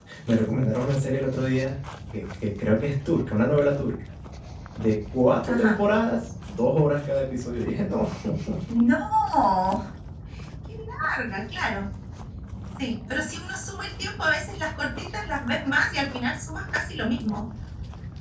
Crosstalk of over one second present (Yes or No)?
No